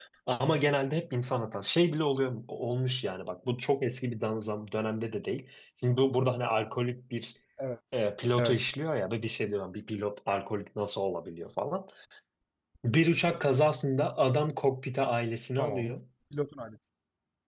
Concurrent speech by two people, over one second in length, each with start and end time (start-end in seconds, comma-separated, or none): none